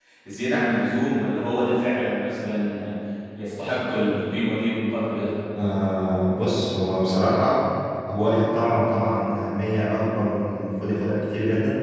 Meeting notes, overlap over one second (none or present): none